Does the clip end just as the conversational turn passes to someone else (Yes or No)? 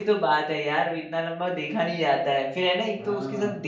No